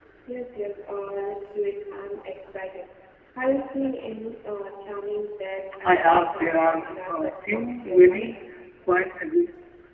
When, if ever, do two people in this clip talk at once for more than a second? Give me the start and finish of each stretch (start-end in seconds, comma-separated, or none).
5.8-8.3